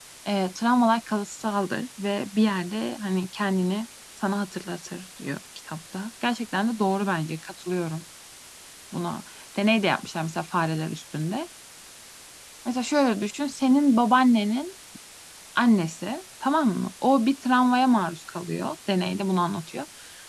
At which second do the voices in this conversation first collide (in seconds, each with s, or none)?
none